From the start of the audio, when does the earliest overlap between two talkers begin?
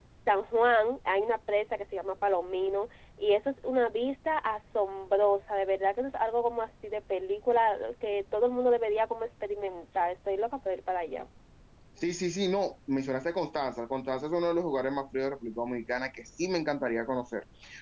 none

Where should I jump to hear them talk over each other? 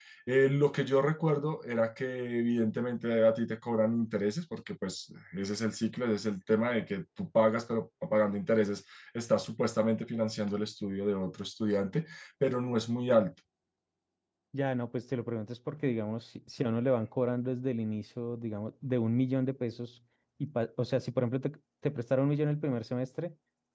none

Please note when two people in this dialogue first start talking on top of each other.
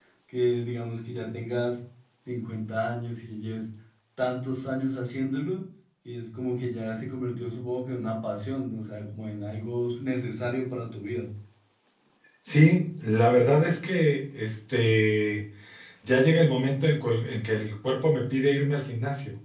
none

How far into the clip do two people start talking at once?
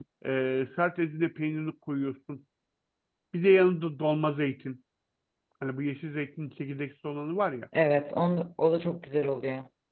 none

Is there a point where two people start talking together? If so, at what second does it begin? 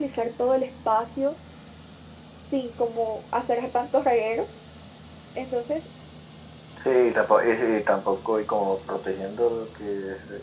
none

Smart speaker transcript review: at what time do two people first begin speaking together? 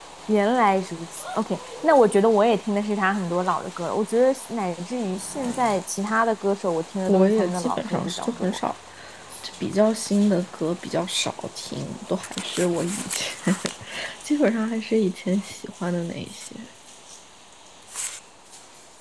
7.1 s

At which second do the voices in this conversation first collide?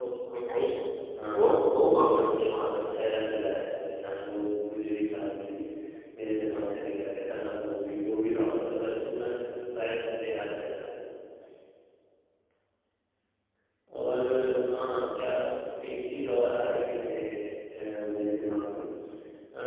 1.3 s

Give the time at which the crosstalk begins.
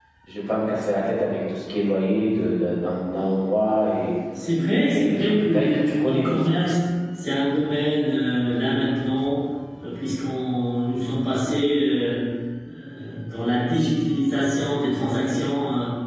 4.9 s

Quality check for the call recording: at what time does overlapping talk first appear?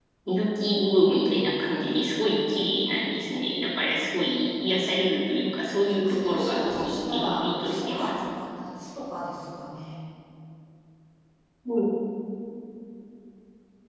5.8 s

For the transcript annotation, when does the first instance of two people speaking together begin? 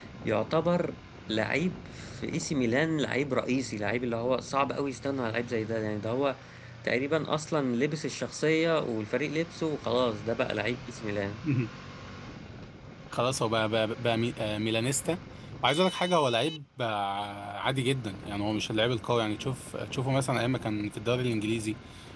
none

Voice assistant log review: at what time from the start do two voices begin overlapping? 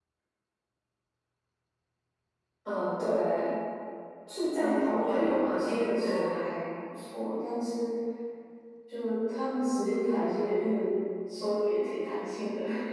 4.5 s

